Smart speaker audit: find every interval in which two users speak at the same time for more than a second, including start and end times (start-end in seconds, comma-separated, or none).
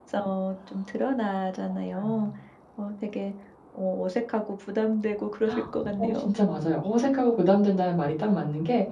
none